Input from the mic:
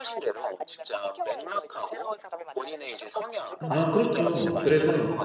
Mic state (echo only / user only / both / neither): both